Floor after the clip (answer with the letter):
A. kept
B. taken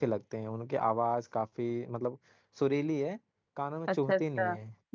B